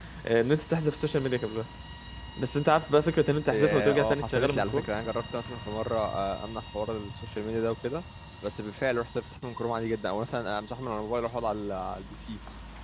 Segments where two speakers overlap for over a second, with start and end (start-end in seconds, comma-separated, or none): 3.5-4.9